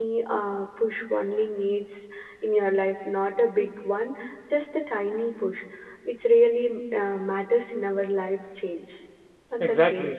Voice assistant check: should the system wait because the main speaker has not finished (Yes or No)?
No